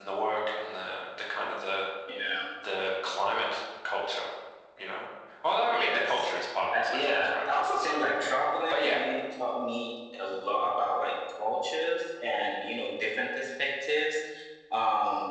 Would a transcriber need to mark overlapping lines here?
Yes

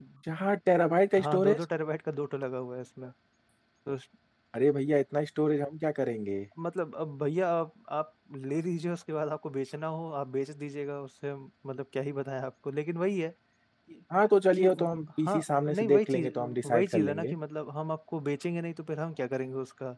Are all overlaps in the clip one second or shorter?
No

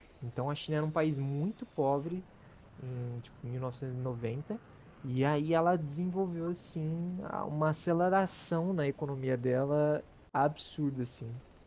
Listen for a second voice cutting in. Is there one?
No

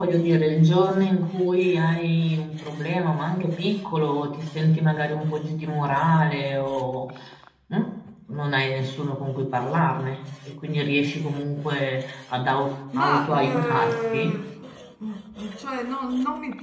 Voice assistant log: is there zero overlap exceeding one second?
No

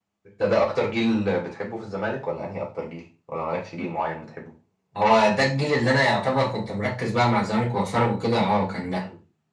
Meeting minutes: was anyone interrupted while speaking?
No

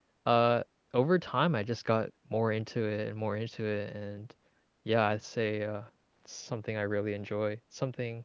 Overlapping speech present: No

